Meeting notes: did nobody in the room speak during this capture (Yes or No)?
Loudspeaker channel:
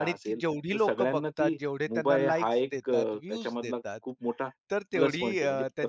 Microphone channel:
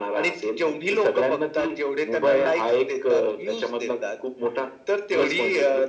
Yes